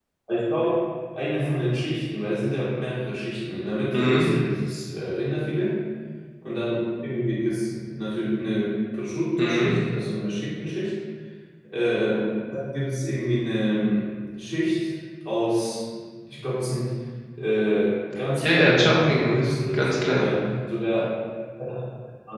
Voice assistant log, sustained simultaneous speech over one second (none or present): present